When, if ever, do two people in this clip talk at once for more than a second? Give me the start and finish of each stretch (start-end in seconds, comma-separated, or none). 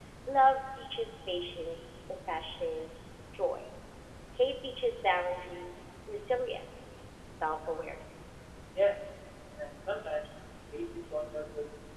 none